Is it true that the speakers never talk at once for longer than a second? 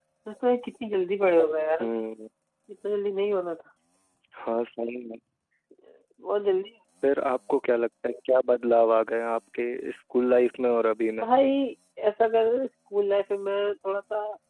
Yes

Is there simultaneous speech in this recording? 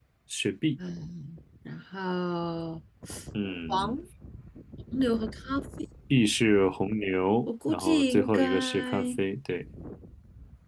Yes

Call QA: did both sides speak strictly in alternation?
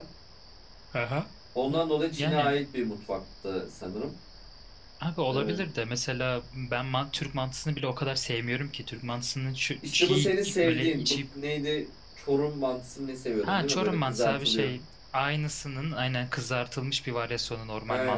No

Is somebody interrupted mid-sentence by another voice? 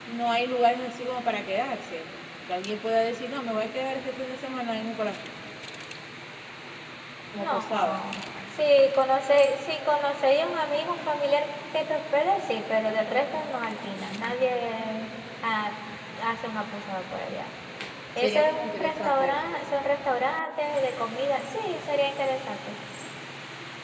Yes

